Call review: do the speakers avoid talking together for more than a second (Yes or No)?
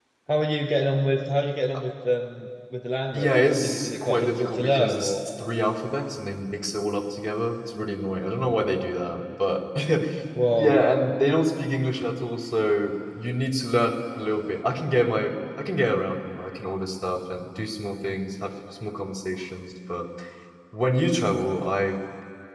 No